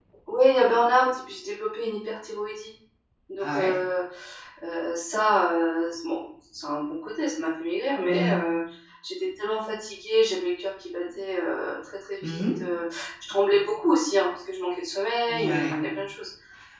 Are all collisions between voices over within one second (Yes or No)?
Yes